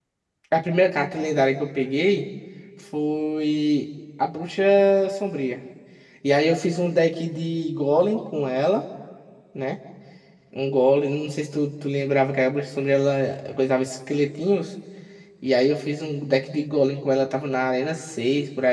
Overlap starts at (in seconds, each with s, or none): none